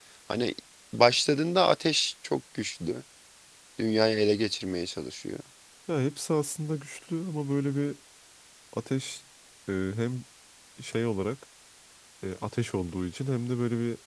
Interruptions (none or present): none